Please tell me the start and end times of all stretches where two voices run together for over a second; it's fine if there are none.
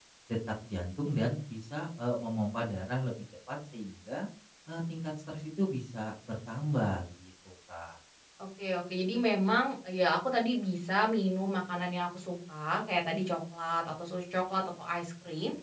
none

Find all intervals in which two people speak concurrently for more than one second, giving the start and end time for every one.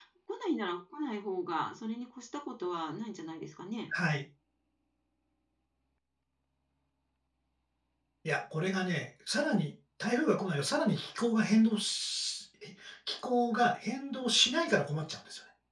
none

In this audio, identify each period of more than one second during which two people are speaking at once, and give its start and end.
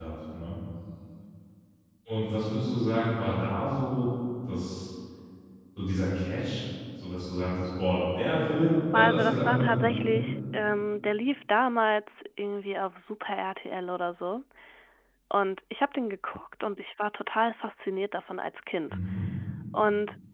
8.9-10.2

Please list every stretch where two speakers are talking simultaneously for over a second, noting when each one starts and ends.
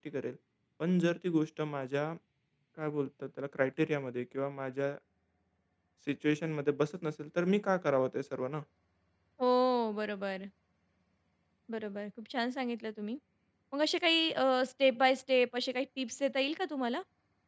none

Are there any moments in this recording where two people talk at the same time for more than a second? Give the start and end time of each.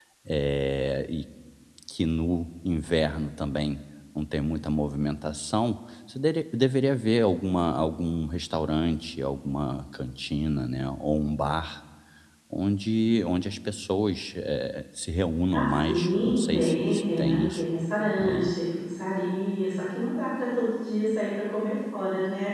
15.5-17.6

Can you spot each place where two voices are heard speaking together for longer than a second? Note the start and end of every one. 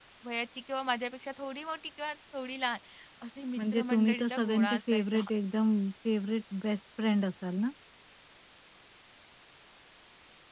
3.6-5.2

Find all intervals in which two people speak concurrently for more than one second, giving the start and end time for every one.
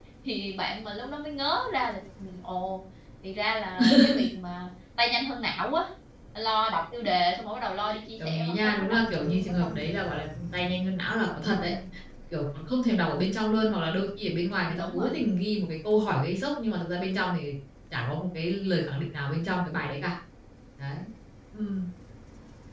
8.2-9.8

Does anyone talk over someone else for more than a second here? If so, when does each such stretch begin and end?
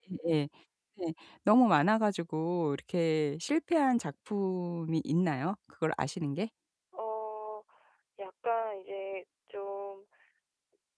none

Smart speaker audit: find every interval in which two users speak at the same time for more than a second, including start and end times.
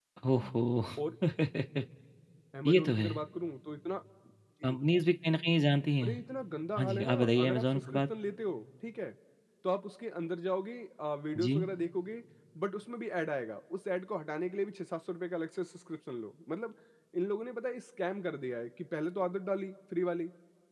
6.8-8.0

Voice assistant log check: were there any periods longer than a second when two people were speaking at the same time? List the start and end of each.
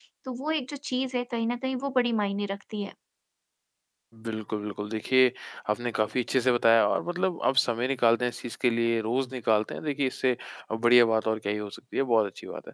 none

